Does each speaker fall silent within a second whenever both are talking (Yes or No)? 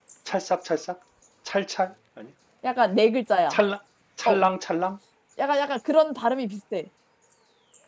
Yes